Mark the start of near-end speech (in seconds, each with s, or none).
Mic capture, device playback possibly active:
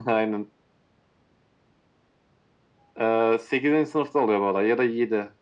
none